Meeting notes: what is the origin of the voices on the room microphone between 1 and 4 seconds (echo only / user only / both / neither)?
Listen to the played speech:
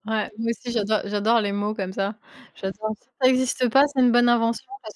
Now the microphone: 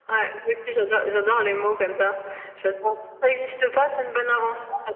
echo only